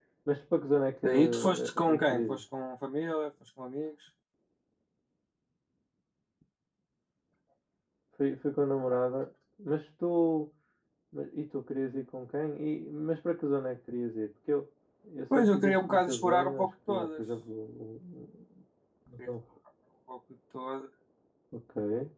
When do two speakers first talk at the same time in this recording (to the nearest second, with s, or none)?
1 s